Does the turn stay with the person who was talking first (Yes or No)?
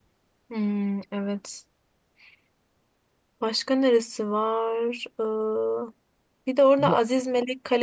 Yes